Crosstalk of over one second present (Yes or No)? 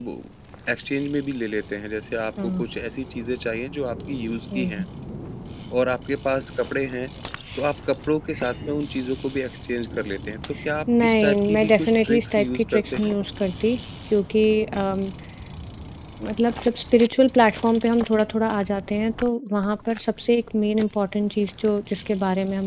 Yes